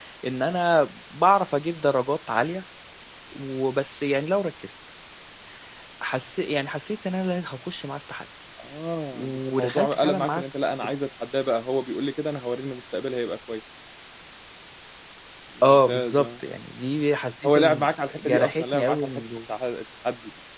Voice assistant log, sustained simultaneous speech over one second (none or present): present